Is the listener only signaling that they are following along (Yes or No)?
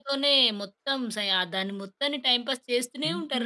No